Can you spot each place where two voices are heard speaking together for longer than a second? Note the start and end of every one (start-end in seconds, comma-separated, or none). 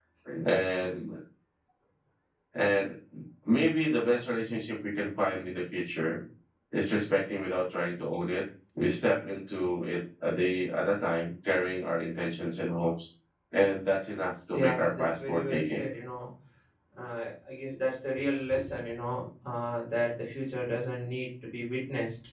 14.5-15.9